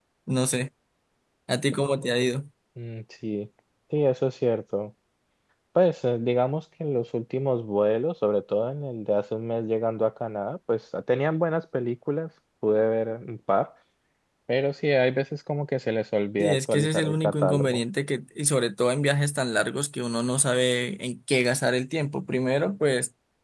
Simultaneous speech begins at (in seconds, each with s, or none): 16.4 s